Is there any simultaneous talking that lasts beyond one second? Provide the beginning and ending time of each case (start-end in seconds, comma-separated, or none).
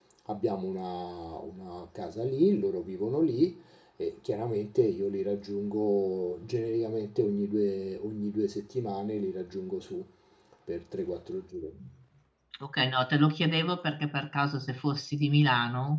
none